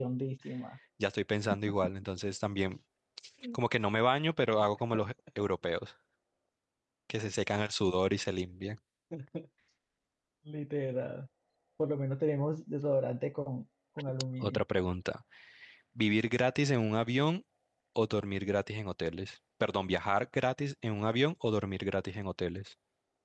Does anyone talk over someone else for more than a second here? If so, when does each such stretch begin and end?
none

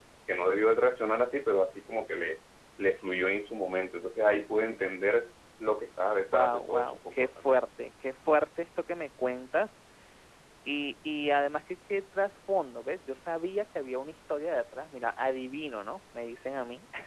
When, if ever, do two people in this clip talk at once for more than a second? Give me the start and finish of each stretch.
6.3-7.6

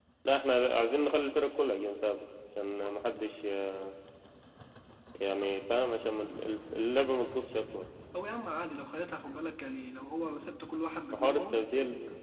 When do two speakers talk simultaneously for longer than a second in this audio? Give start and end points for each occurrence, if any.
none

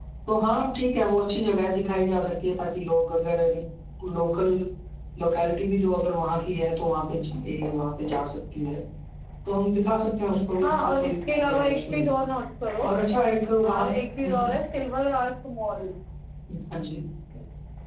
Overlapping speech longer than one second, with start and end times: 10.6-12.2

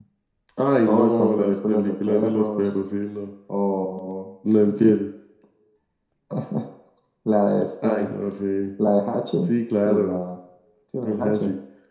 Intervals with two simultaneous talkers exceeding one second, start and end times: 0.9-2.7

